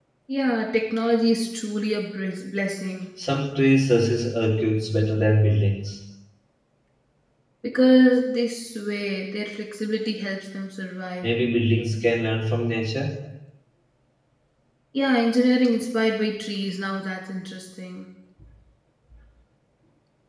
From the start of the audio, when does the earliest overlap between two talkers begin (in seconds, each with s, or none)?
none